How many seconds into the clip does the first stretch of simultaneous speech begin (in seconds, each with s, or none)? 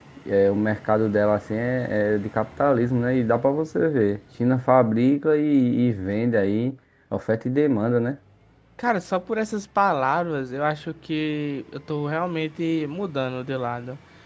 none